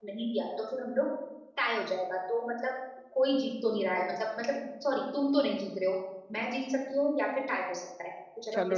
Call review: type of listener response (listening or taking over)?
taking over